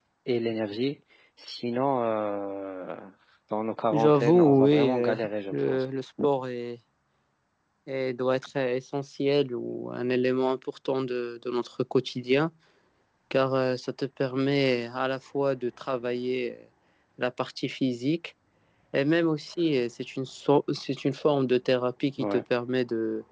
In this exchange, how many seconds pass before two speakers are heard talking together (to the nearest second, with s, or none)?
4 s